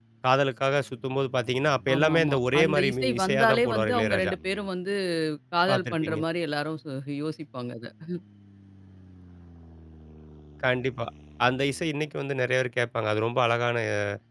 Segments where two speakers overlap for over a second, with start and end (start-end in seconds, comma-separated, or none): 1.9-4.3